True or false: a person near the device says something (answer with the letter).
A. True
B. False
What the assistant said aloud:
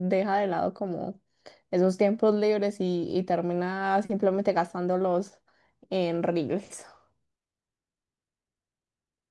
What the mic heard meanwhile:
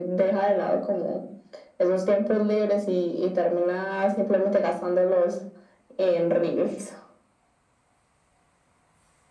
B